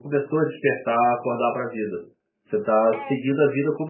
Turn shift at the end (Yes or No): No